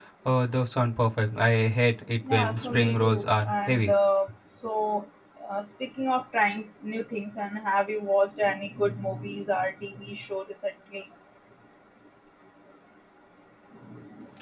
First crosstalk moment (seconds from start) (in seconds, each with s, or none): 2.2 s